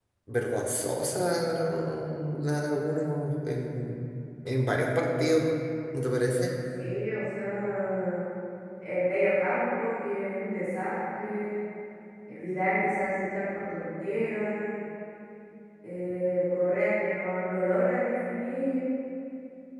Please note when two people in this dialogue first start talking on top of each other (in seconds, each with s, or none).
none